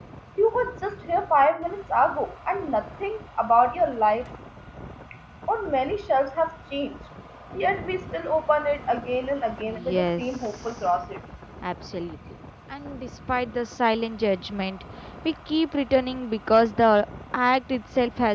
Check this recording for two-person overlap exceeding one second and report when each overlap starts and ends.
9.6-10.9

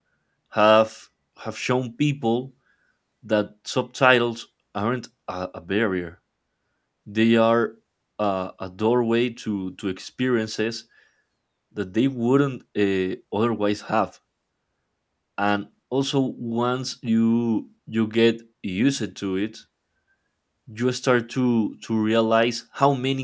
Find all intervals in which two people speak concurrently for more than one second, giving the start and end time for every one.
none

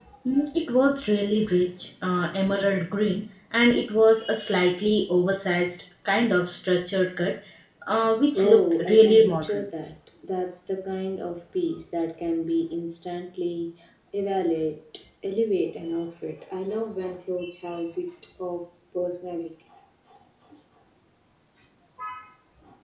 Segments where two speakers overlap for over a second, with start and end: 8.3-9.7

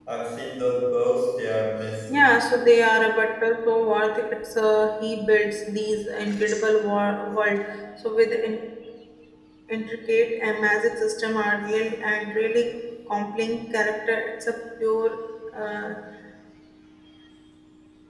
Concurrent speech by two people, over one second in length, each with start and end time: none

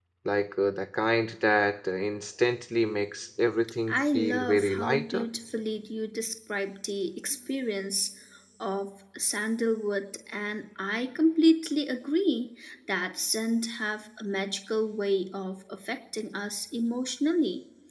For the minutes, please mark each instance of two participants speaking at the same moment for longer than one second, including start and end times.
3.9-5.2

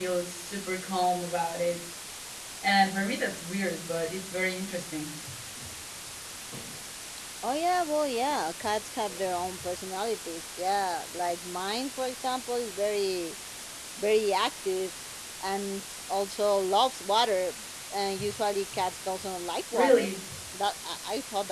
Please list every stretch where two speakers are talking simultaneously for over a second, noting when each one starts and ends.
none

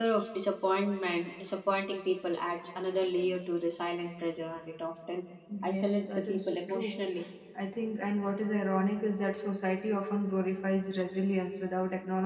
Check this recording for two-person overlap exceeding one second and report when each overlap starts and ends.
5.6-6.9

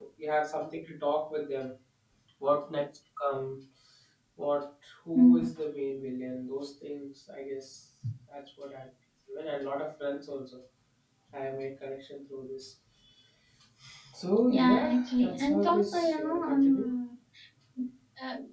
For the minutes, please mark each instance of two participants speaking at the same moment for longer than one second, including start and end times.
14.5-16.9

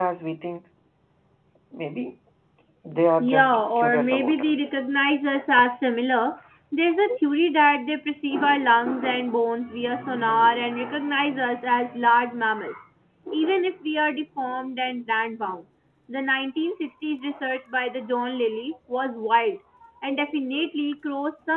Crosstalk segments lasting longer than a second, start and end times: 3.2-4.7

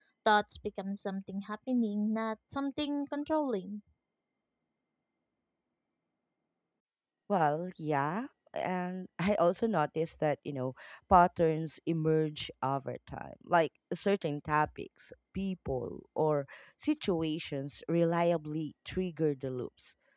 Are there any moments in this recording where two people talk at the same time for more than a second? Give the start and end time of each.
none

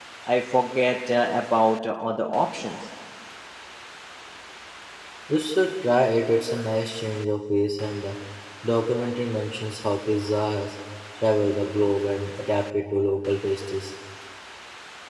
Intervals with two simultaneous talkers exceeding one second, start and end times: none

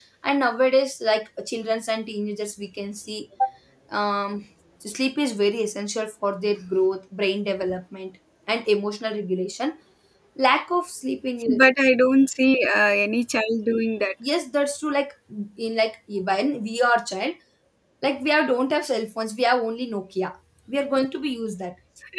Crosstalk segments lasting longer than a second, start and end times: none

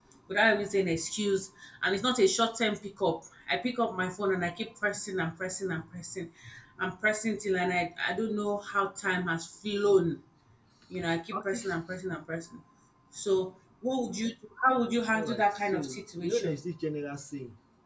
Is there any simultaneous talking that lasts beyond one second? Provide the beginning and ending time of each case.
15.1-16.6

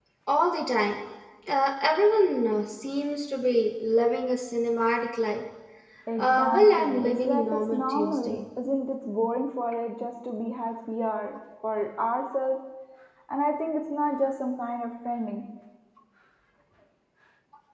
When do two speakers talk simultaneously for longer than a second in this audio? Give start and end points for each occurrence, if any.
6.2-8.4

